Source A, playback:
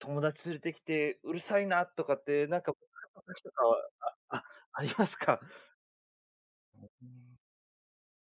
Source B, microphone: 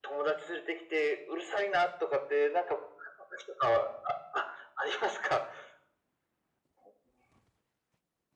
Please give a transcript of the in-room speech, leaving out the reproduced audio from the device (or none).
none